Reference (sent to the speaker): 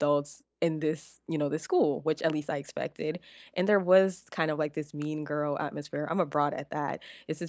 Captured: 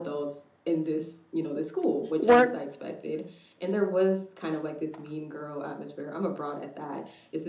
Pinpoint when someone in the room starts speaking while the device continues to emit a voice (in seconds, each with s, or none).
2.2 s